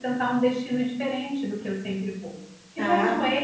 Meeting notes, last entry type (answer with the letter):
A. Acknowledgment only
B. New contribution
A